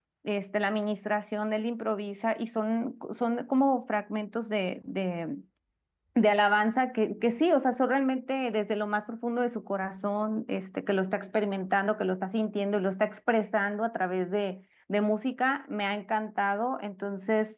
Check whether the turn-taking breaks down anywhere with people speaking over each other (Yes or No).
No